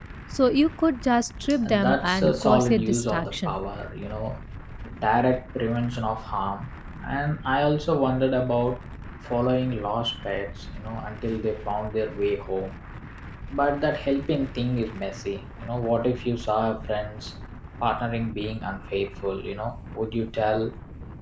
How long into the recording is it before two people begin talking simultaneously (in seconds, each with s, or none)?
1.6 s